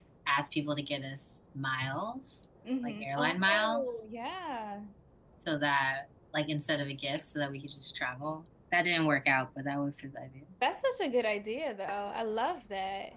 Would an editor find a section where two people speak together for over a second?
Yes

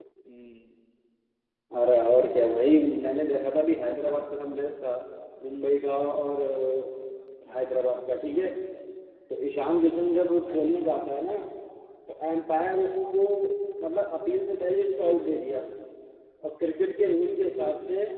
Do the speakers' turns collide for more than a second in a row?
No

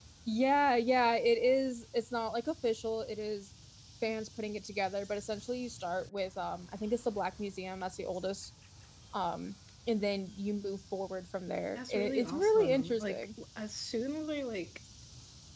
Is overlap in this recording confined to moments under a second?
No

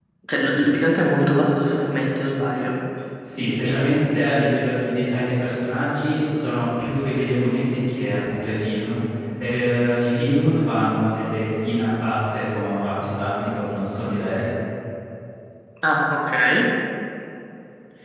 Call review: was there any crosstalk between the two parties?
No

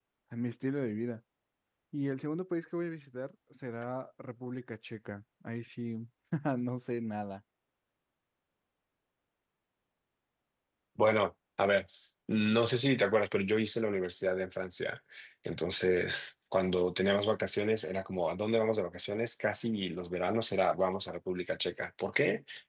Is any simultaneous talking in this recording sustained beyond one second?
No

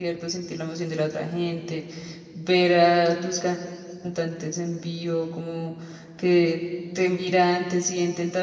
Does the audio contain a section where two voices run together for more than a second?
No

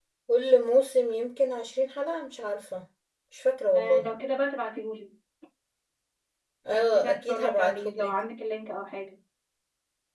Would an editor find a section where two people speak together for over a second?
Yes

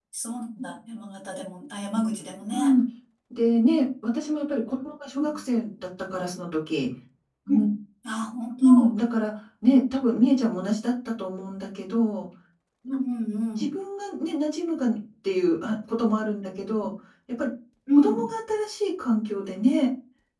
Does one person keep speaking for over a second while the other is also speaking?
No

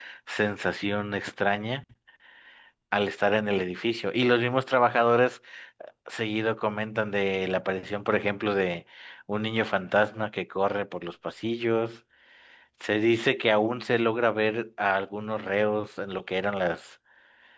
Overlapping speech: No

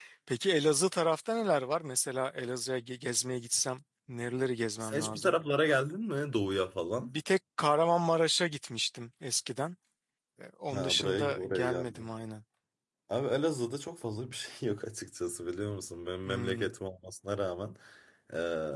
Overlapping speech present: Yes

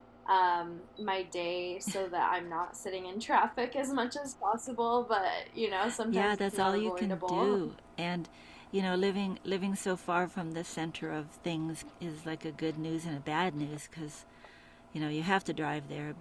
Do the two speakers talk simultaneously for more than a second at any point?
Yes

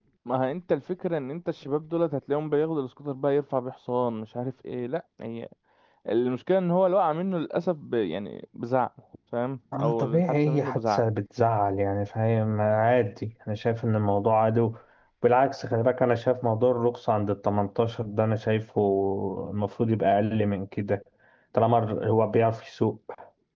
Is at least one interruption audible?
Yes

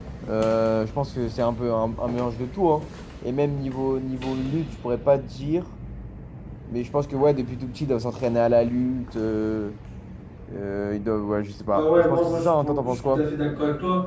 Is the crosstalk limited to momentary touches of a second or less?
No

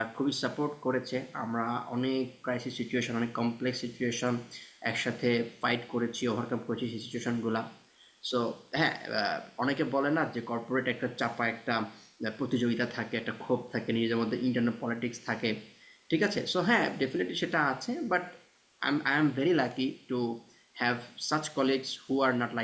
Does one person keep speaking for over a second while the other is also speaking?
No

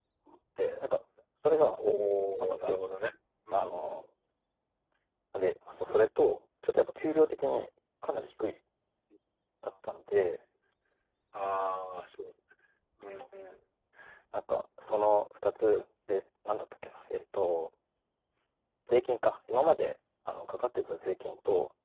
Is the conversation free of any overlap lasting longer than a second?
Yes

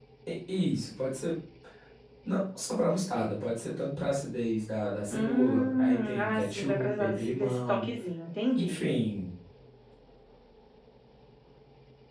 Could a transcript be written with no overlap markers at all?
No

